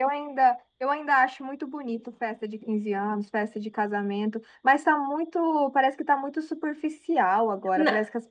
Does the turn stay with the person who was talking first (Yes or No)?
Yes